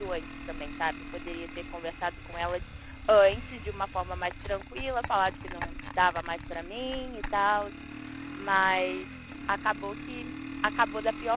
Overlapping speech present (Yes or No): No